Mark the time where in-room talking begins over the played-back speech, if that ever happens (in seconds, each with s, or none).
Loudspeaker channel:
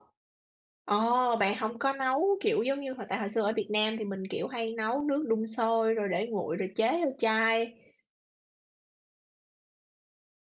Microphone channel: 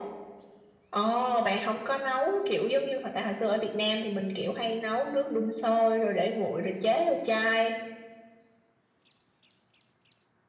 none